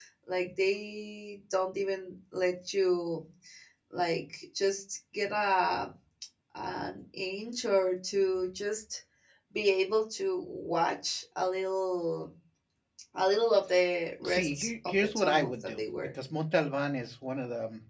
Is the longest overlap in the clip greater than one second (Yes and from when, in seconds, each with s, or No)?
Yes, from 14.2 s